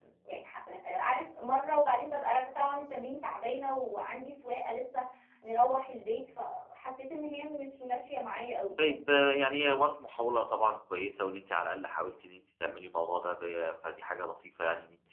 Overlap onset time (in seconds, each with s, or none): none